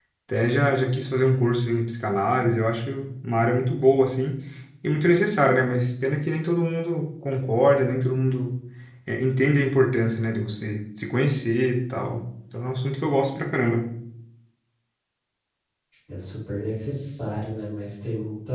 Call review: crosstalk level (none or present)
none